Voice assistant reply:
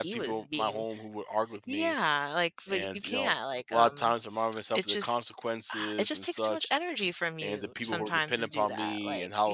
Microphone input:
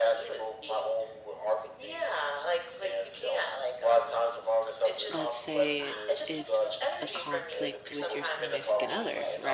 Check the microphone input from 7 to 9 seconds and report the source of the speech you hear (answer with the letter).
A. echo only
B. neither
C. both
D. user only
C